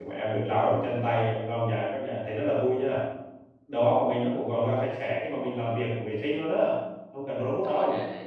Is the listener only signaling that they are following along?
No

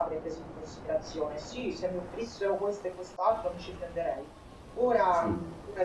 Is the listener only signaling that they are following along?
Yes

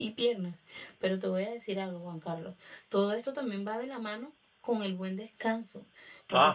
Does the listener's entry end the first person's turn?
No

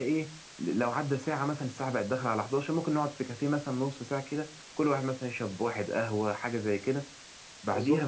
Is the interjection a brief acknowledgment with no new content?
Yes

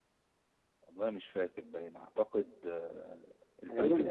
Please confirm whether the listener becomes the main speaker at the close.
Yes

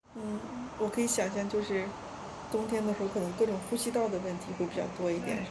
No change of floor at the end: No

